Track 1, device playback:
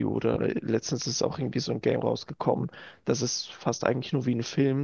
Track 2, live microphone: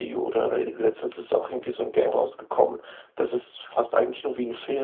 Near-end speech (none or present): none